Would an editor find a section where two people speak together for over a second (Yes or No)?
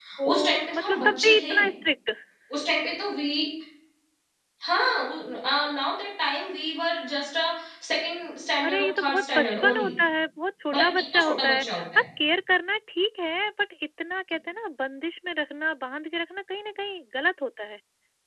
Yes